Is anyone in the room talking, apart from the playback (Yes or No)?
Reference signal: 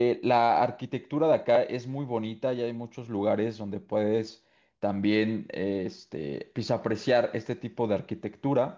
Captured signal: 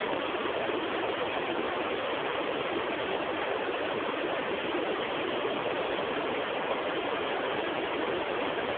No